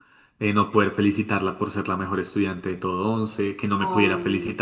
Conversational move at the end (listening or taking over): listening